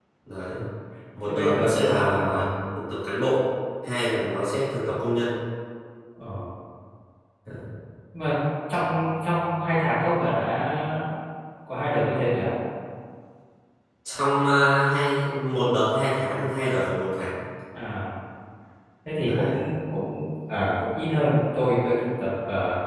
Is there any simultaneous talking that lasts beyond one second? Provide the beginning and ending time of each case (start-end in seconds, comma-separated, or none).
1.3-2.5